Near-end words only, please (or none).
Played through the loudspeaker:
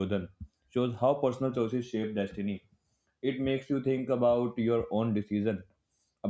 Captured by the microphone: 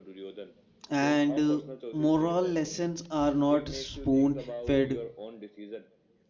and uh, moral lessons are not spoon fed